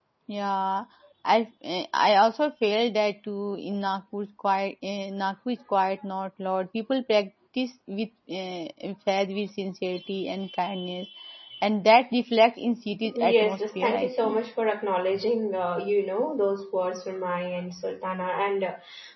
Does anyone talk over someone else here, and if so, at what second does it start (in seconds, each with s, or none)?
13.0 s